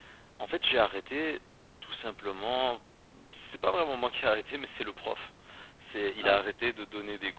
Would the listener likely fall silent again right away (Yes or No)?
Yes